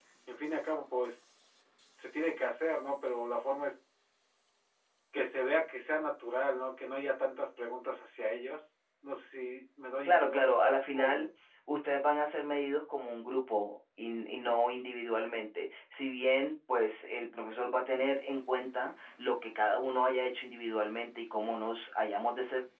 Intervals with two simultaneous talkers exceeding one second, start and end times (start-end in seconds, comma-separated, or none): 10.0-11.2